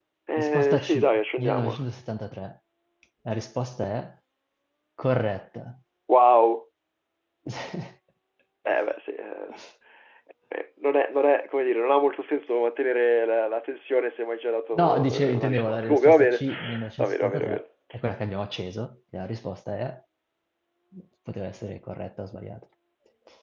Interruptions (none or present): present